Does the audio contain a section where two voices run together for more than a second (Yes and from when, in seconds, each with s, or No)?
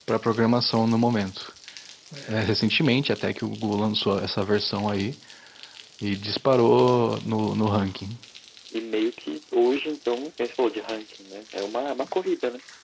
No